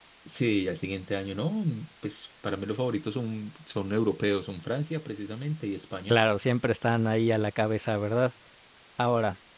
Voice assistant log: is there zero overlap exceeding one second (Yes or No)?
Yes